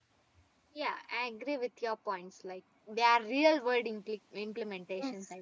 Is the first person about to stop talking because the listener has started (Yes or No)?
Yes